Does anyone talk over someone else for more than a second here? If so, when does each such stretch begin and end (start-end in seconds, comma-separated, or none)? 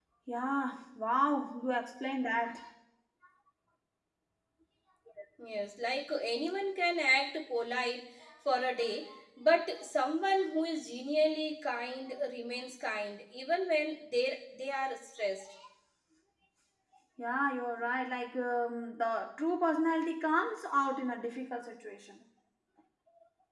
none